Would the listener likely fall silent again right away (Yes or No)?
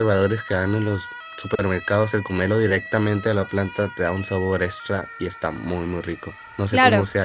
No